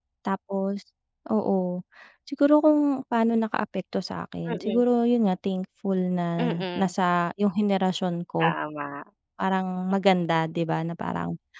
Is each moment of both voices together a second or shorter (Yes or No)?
Yes